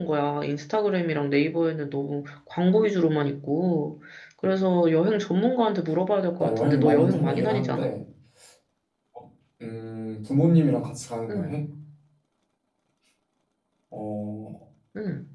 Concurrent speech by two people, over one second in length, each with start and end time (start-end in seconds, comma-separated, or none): 6.4-7.9